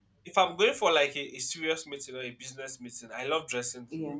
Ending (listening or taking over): listening